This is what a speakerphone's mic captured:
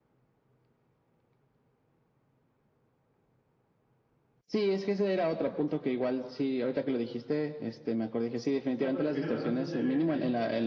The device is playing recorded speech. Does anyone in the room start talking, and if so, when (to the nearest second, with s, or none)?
9 s